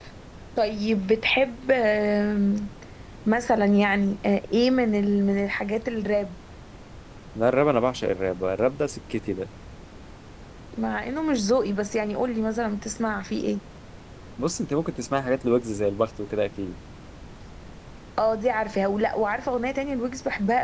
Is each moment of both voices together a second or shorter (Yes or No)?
Yes